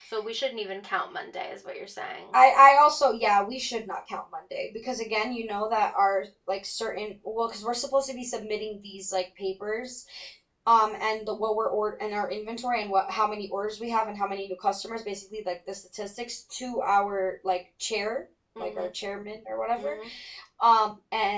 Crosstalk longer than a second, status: none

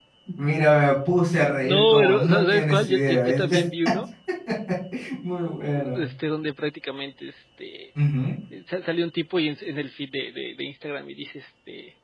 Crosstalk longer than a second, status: present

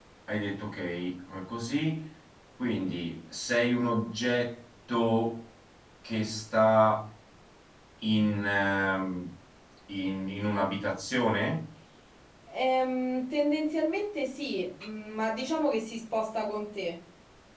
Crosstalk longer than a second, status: none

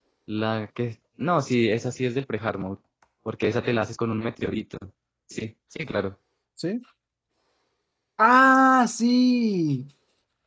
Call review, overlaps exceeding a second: none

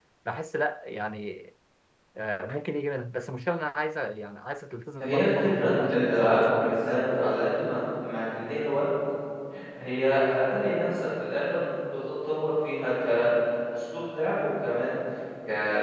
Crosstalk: present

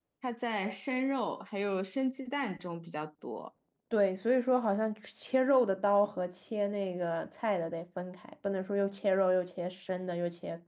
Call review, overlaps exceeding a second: none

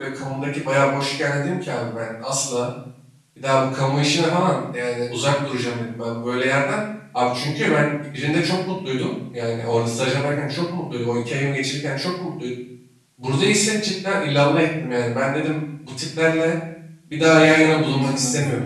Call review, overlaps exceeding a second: present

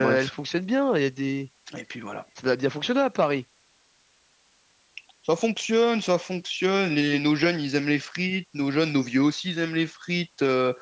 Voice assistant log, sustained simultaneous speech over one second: none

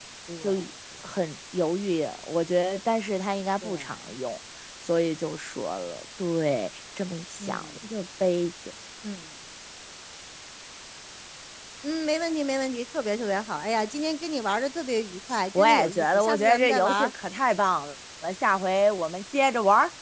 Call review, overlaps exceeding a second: present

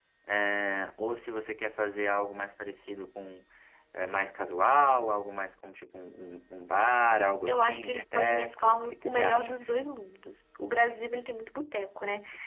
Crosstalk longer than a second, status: present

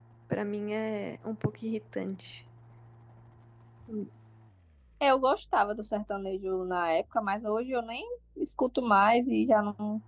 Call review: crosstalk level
none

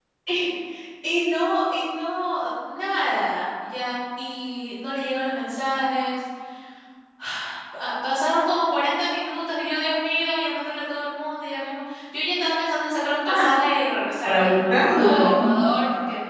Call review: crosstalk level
present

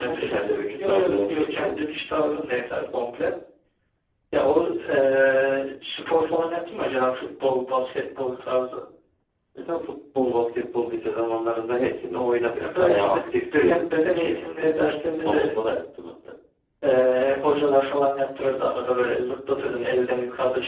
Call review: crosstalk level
present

